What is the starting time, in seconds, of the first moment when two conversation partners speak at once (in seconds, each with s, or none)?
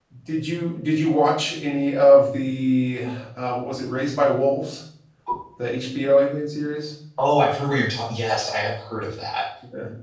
none